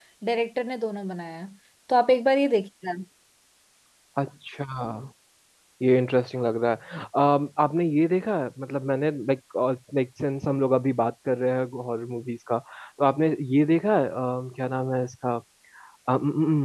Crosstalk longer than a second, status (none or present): none